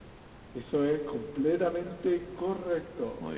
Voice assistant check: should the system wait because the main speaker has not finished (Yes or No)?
Yes